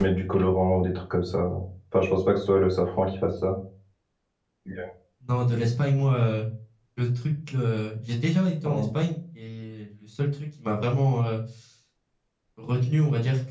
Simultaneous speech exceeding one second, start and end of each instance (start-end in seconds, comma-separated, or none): none